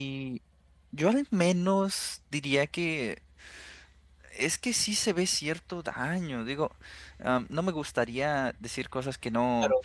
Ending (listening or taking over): taking over